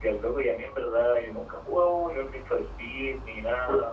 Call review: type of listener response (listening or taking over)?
taking over